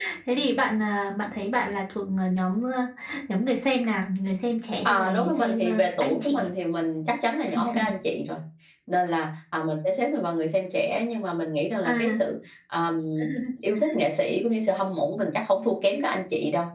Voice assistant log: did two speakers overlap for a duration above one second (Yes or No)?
Yes